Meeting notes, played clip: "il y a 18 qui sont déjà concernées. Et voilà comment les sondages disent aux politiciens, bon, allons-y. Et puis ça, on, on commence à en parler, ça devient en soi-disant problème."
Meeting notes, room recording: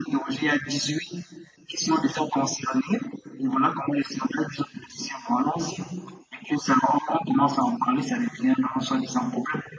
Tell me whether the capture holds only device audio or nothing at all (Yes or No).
Yes